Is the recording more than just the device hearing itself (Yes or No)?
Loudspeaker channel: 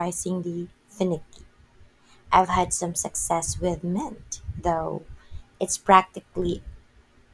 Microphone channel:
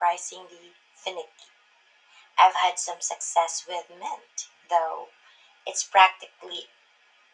No